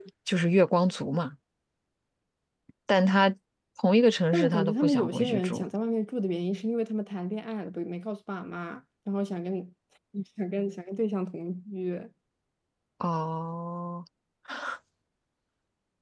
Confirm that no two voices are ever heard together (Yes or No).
No